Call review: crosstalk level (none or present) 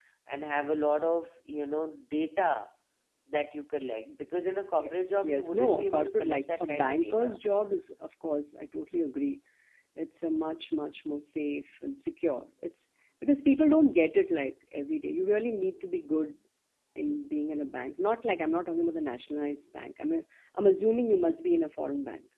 present